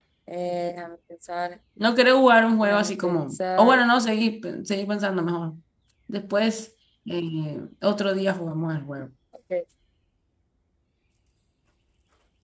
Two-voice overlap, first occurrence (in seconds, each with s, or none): 2.6 s